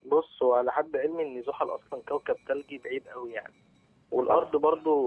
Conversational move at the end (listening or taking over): listening